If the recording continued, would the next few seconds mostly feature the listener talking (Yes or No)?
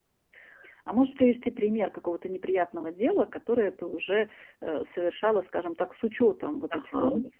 Yes